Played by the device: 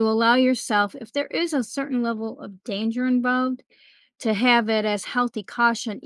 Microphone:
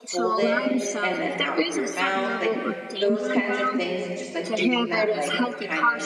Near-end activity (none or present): present